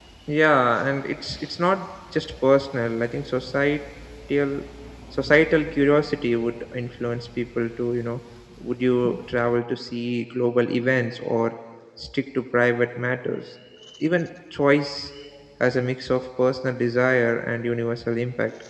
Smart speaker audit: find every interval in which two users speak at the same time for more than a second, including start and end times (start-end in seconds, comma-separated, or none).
none